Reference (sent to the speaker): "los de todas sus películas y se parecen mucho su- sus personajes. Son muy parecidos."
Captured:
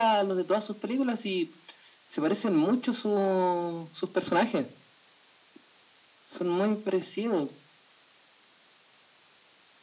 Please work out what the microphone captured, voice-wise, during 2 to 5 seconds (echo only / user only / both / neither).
echo only